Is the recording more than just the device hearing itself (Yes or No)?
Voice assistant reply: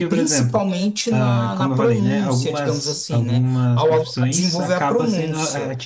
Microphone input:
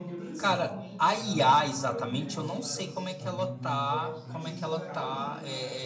Yes